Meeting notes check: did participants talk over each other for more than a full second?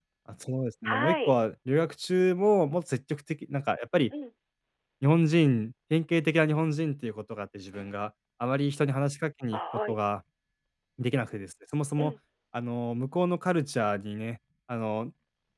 No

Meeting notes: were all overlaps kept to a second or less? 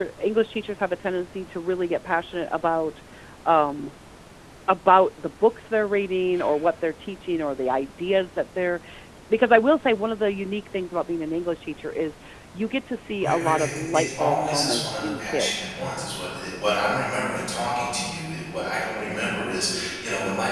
No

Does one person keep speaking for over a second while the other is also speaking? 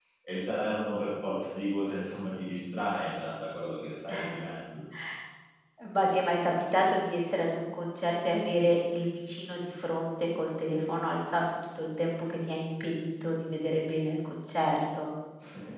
No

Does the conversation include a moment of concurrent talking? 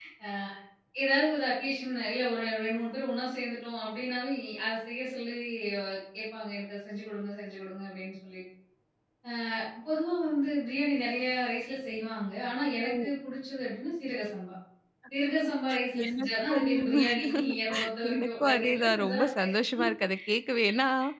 Yes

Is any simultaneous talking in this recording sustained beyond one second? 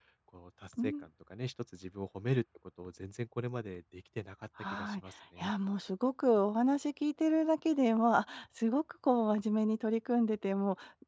No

